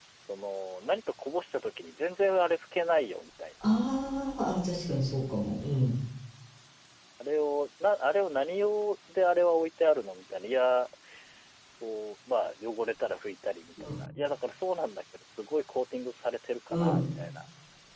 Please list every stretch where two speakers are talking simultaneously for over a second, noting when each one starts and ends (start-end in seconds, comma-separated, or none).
none